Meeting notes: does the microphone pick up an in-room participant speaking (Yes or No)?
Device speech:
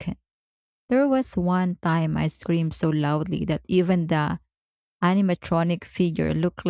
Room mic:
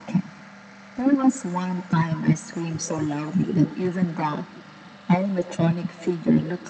No